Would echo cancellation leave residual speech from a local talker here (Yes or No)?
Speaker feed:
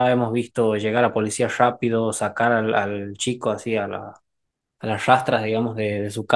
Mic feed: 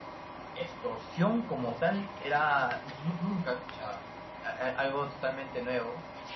Yes